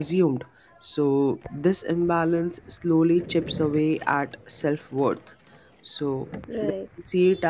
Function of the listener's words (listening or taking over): listening